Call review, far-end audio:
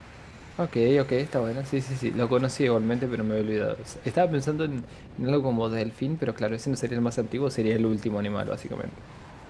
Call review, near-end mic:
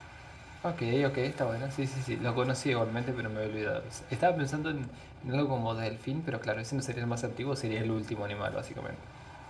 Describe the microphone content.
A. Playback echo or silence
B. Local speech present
A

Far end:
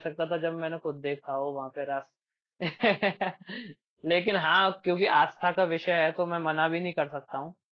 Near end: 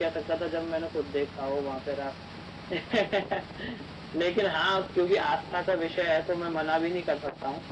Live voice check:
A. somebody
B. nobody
B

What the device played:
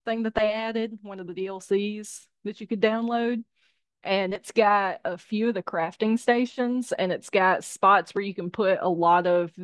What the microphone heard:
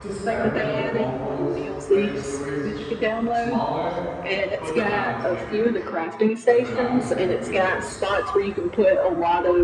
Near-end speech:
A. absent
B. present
B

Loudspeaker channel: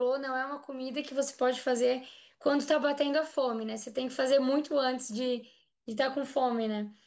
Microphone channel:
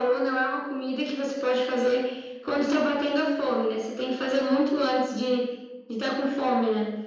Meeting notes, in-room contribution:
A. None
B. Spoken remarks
A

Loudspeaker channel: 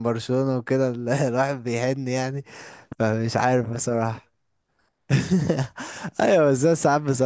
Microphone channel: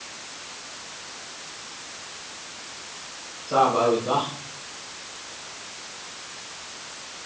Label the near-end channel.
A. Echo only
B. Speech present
B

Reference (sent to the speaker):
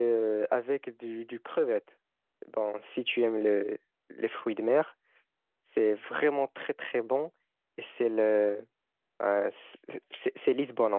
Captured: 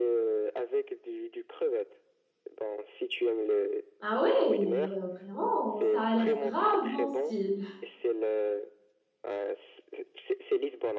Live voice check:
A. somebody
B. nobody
A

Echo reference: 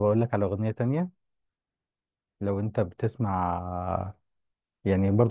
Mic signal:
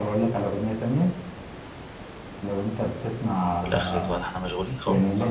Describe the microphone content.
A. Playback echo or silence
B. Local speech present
B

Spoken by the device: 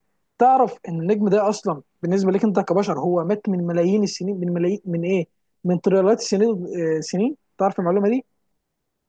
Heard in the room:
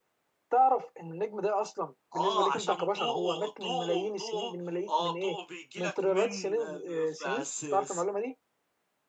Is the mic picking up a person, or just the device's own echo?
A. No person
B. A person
B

